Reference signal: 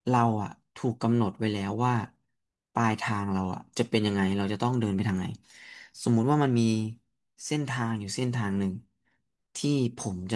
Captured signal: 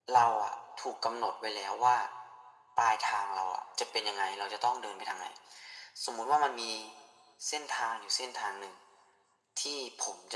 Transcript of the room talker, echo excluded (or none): none